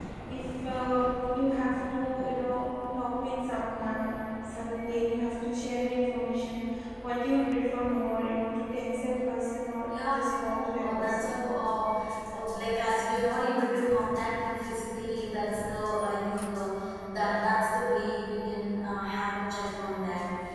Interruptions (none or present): present